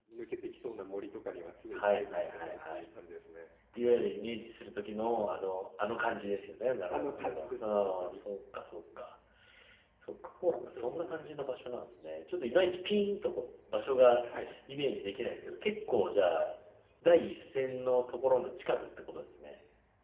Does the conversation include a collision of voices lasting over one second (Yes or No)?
Yes